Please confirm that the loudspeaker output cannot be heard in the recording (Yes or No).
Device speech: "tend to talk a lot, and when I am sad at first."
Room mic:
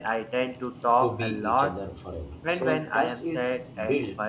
No